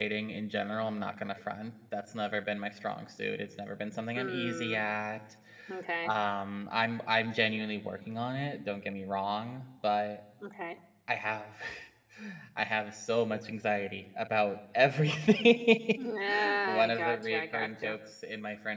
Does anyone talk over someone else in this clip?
Yes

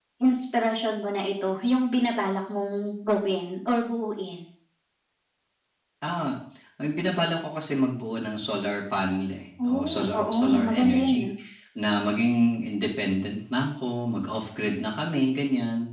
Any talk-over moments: Yes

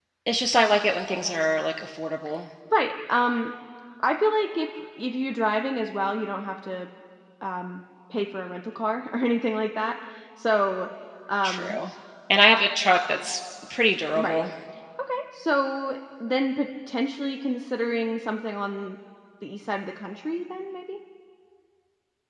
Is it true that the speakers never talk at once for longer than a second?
Yes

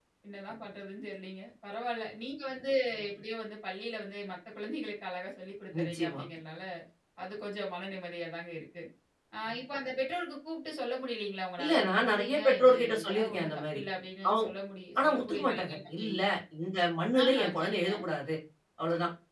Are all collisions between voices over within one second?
No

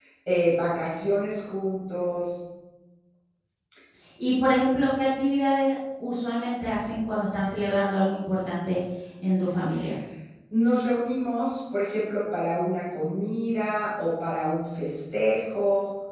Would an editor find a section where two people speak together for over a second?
No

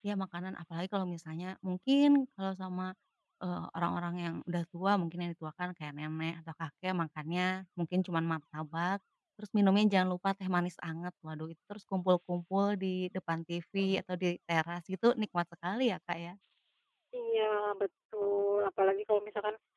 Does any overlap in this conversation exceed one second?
No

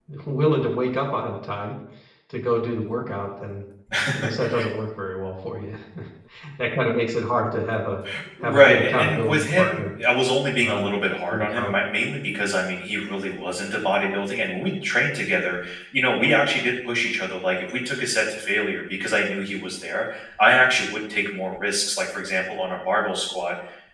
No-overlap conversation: No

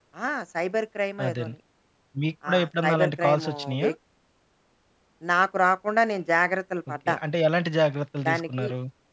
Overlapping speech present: Yes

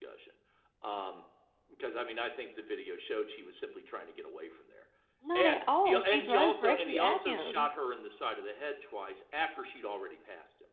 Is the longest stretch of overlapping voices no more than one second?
No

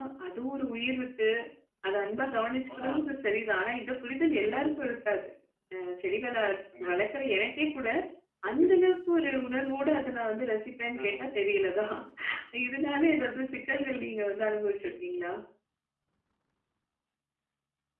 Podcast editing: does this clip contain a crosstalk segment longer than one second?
No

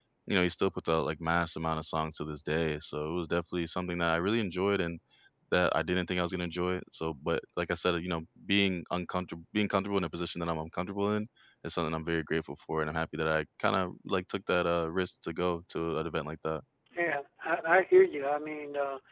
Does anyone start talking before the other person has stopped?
No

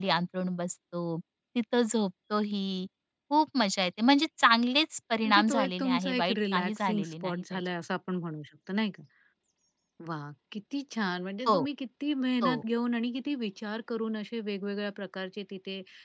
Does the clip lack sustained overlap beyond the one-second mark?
No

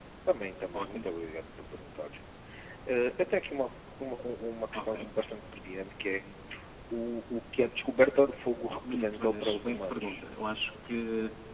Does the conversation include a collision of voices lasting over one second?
Yes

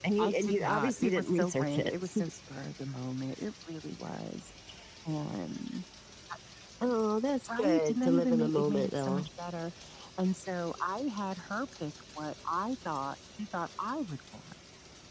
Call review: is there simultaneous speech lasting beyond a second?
Yes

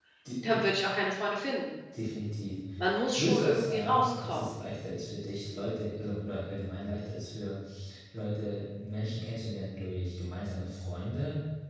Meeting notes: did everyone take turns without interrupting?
No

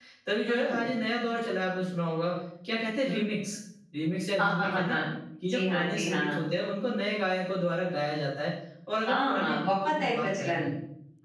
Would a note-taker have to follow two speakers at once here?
Yes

